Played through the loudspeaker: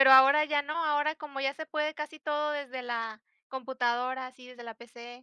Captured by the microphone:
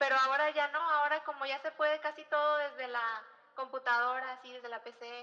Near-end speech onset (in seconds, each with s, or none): none